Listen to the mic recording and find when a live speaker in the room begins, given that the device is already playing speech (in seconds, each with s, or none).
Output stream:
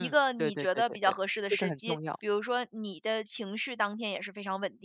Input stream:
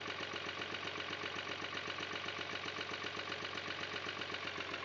none